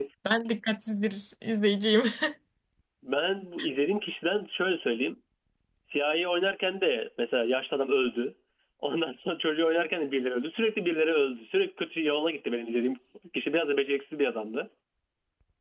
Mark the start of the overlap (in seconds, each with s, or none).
none